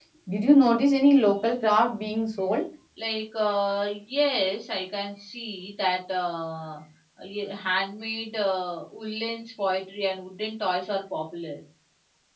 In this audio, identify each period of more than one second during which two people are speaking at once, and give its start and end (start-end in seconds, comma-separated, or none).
none